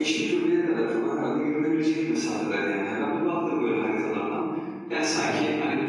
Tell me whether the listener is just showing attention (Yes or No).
Yes